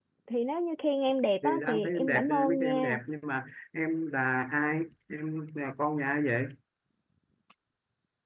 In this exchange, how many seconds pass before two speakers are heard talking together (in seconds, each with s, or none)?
1.4 s